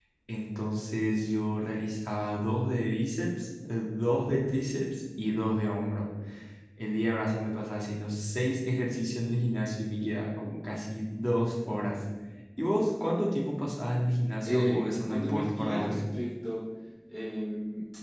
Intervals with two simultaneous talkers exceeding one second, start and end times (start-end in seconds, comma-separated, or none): 14.4-16.0